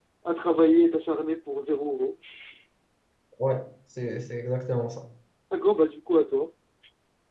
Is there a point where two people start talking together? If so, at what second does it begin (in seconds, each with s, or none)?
none